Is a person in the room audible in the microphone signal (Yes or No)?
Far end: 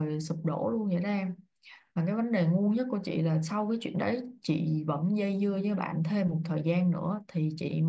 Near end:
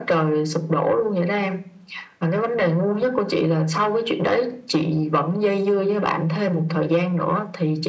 No